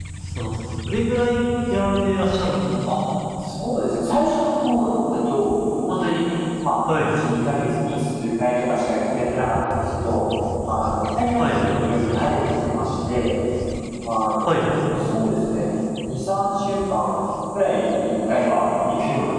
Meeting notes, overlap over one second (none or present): none